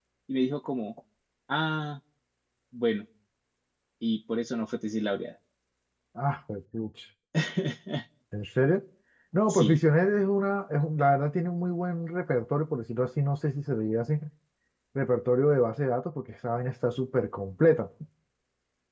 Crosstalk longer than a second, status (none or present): none